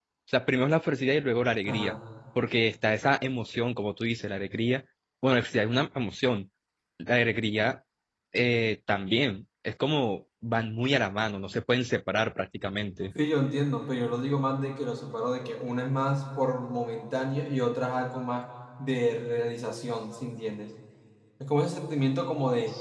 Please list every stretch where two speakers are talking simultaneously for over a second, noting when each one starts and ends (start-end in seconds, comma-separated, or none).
none